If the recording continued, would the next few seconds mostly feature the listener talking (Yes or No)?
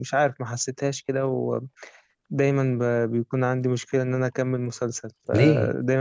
No